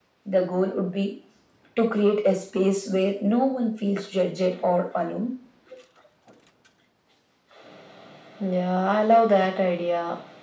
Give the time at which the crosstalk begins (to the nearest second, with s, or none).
none